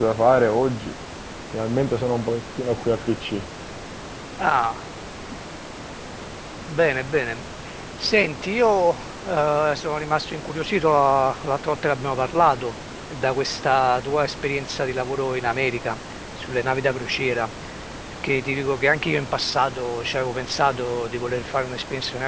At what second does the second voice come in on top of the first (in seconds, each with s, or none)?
none